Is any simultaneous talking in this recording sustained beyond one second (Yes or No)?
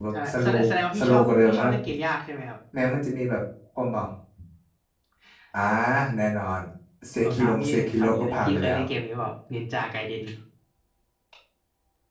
Yes